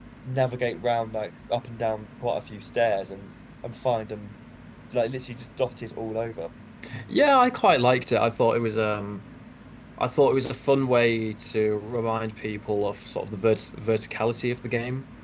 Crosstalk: none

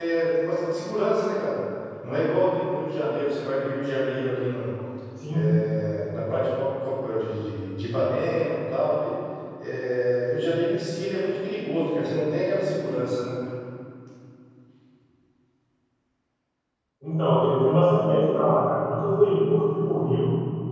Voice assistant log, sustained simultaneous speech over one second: none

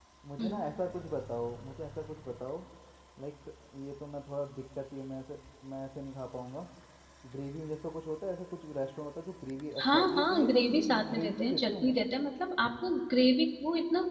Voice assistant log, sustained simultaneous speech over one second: present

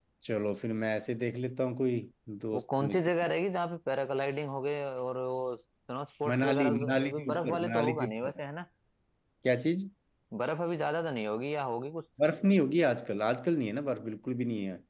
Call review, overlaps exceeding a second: present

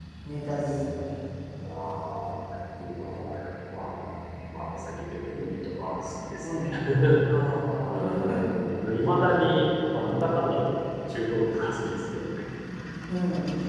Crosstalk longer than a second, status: none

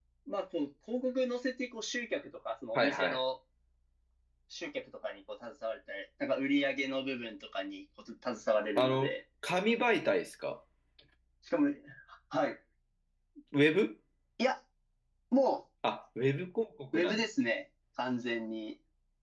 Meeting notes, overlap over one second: none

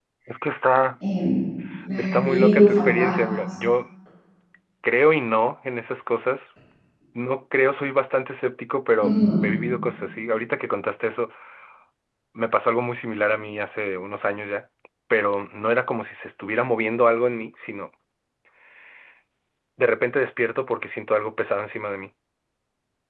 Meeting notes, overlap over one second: present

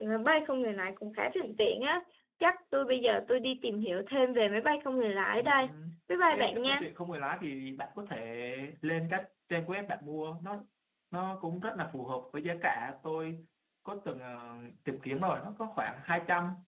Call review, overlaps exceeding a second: none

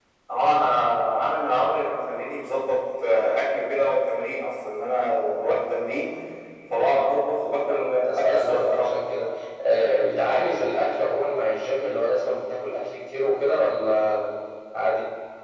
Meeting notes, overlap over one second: present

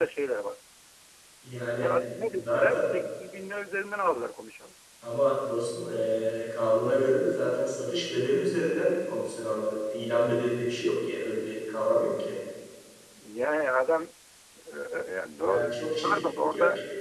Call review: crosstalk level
present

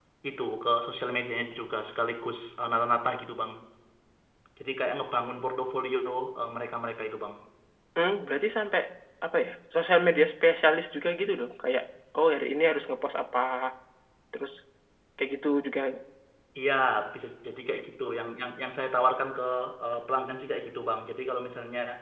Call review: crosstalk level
none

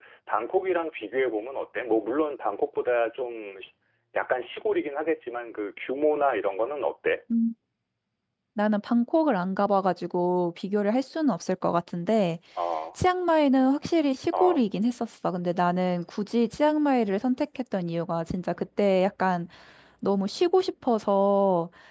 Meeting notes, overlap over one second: none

